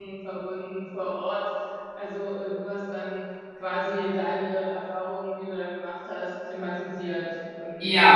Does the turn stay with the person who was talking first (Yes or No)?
No